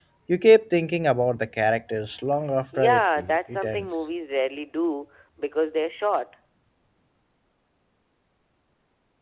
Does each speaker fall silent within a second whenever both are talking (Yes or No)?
No